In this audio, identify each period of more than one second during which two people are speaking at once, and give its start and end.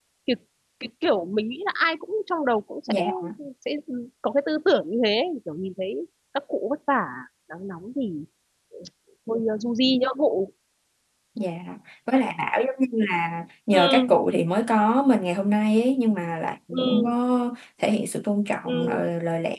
none

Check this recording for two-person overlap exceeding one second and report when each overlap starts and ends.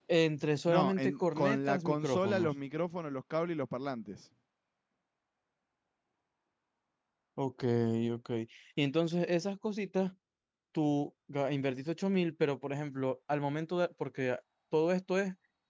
0.7-2.5

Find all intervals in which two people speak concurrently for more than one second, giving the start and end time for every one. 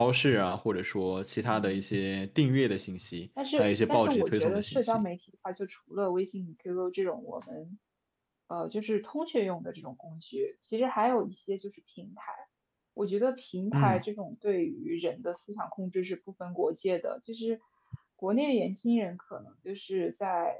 3.6-5.0

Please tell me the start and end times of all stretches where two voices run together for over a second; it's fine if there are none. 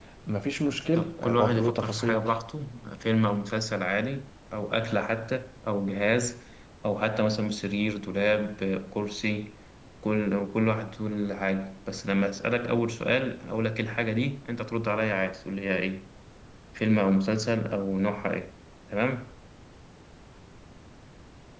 0.9-2.3

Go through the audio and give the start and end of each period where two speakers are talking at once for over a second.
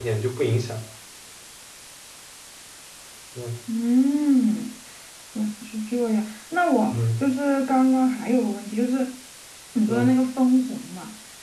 none

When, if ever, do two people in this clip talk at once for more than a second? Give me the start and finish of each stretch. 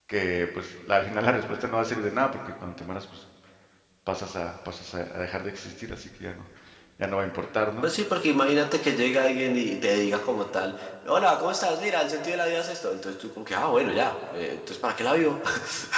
none

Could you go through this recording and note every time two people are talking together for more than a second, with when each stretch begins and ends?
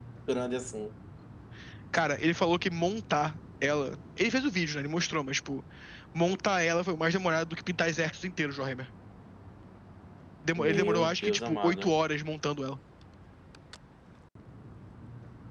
10.6-12.0

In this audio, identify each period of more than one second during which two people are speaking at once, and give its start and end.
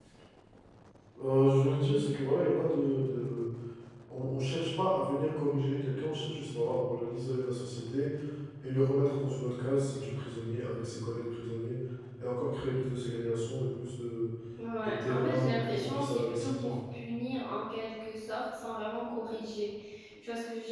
14.8-16.8

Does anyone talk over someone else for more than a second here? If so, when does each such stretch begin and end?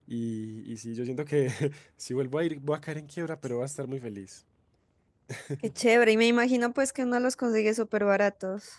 none

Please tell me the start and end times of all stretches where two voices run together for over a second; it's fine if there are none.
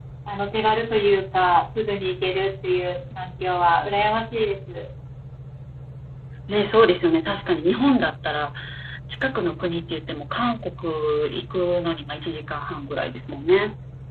none

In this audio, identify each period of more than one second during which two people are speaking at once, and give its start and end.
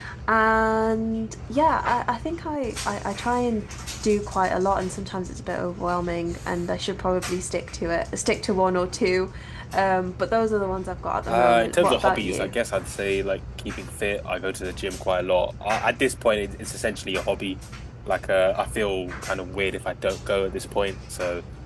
11.3-12.5

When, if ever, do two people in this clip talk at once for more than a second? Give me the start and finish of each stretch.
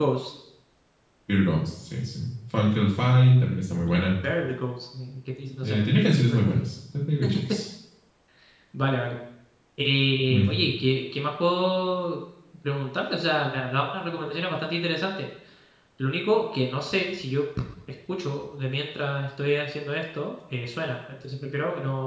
none

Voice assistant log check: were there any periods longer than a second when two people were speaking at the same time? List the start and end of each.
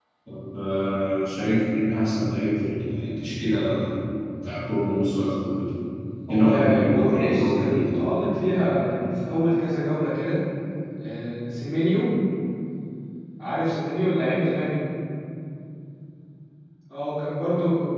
6.3-8.0

